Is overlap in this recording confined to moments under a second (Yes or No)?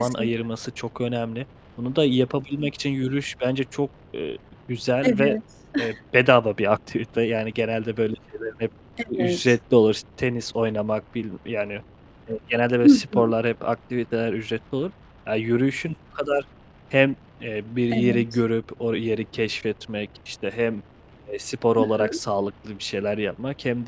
Yes